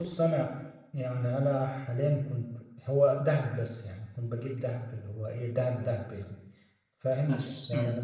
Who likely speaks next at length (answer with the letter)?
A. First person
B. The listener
A